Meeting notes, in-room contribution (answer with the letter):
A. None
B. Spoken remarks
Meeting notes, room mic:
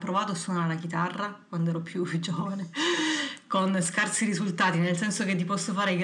A